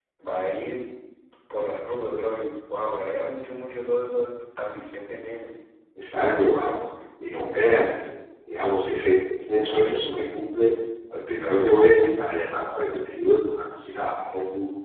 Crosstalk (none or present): none